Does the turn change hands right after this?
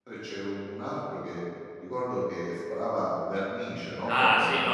Yes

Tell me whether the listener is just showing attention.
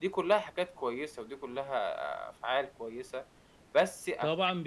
No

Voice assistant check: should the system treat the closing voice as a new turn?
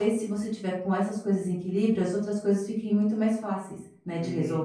Yes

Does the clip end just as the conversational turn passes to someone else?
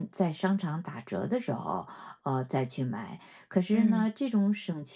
No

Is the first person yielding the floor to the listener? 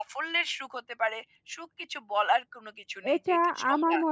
Yes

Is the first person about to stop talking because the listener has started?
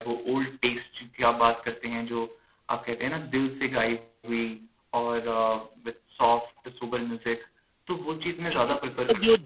Yes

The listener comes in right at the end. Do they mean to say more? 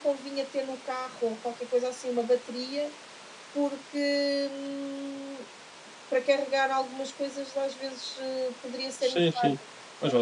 Yes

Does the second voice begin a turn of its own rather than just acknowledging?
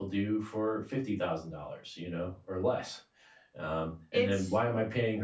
No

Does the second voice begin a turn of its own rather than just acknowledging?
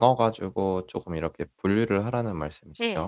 Yes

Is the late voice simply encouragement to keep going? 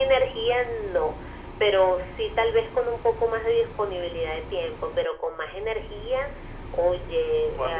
Yes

